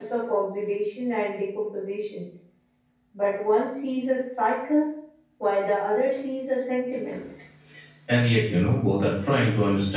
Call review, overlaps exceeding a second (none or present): none